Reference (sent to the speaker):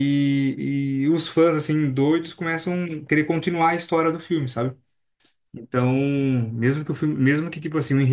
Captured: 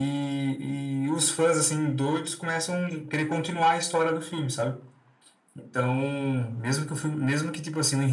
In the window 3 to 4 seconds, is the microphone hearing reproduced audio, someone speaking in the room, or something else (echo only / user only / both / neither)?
echo only